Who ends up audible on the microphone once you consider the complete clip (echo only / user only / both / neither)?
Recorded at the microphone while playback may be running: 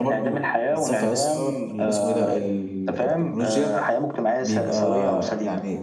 both